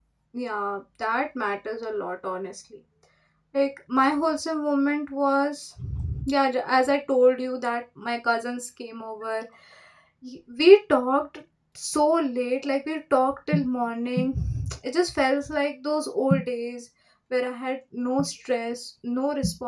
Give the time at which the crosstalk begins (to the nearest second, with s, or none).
none